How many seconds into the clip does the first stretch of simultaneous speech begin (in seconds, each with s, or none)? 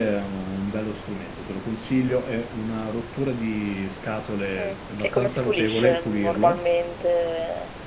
4.6 s